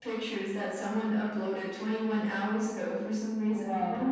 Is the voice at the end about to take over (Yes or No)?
Yes